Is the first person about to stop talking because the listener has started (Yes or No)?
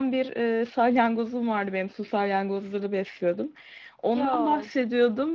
No